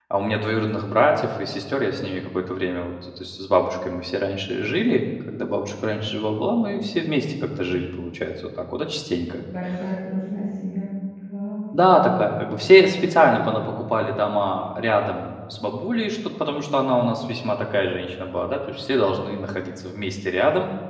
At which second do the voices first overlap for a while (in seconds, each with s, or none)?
none